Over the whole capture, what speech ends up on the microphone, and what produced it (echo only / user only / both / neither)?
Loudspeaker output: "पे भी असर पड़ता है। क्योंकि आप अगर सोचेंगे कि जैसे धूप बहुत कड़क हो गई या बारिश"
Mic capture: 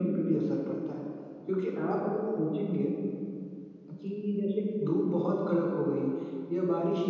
echo only